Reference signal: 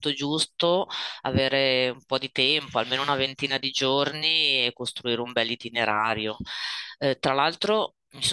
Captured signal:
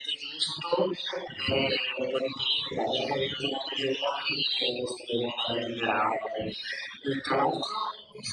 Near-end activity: none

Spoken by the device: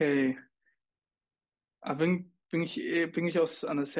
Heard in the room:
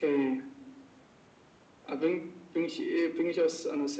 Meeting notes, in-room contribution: none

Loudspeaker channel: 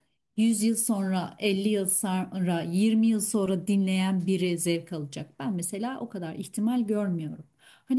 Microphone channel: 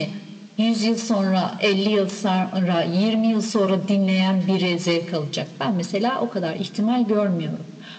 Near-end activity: none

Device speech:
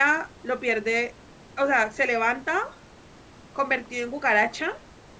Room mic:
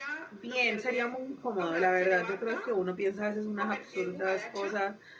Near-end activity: present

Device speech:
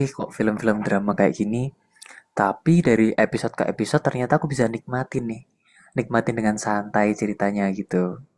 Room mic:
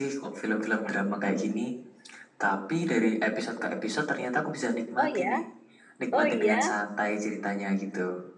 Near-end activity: present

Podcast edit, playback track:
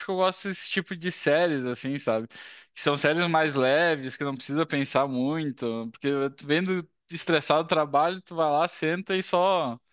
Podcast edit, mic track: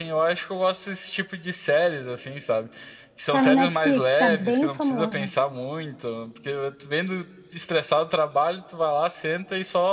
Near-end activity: present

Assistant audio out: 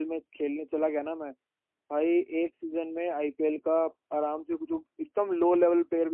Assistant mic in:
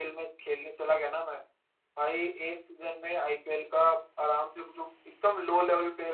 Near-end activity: none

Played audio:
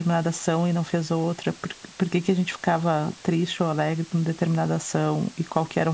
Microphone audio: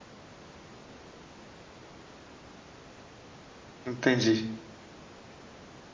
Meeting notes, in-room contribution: present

